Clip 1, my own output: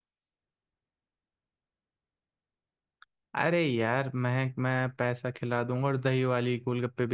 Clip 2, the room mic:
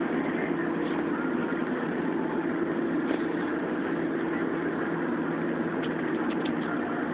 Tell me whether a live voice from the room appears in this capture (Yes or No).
No